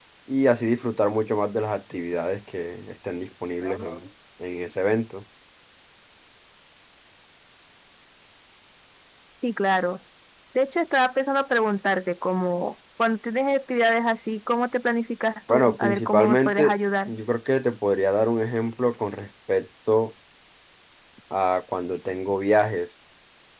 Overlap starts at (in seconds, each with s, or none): 15.5 s